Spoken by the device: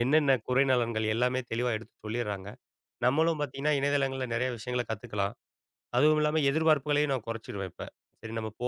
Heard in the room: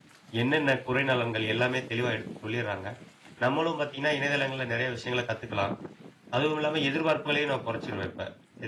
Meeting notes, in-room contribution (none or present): none